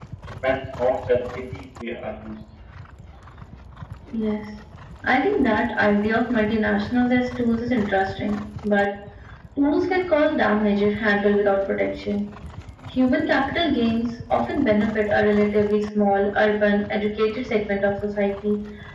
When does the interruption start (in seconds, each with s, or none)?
none